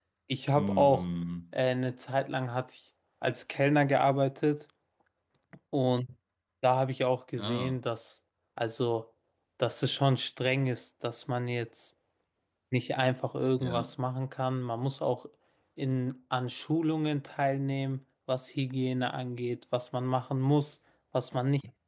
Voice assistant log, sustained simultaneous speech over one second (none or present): none